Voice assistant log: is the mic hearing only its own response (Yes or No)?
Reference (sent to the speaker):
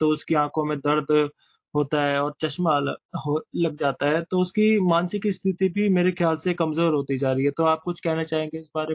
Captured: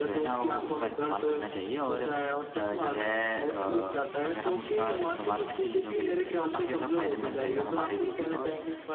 No